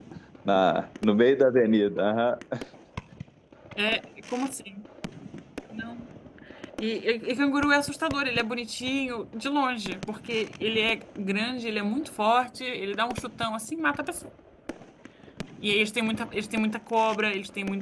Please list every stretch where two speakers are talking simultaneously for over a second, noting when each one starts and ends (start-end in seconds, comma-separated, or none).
none